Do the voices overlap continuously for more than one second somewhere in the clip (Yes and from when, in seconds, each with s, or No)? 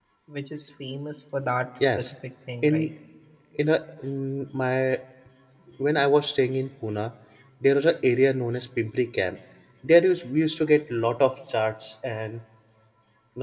No